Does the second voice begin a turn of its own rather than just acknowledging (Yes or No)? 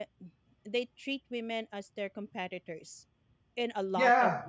Yes